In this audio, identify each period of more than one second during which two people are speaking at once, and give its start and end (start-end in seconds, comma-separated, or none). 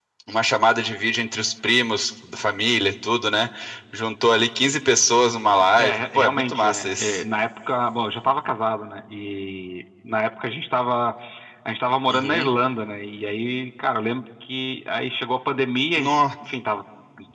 5.8-7.2